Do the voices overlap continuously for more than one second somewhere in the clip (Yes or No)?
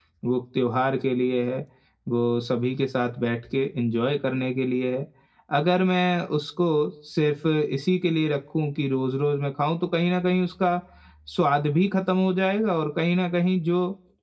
No